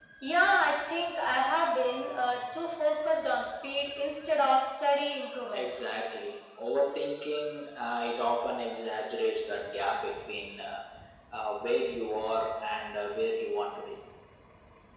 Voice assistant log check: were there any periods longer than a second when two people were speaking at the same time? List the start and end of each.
none

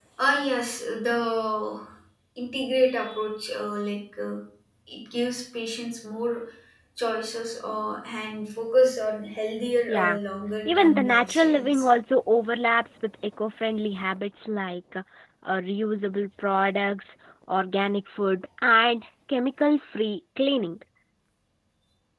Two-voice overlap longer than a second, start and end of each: 10.7-11.8

